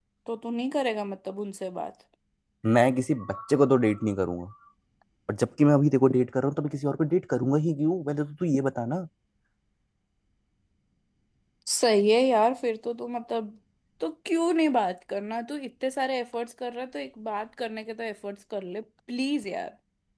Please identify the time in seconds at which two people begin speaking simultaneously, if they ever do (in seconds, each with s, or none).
none